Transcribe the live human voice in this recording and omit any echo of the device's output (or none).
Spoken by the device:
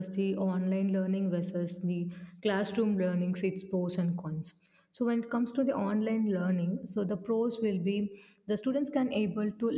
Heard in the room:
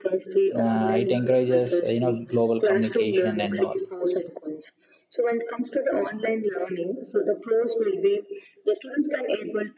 uh, it encourages uh, you know global communication and all.